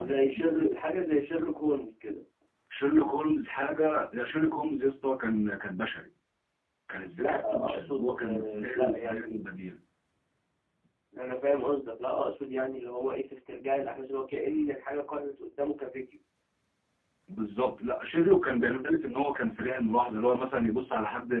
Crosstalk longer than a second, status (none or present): present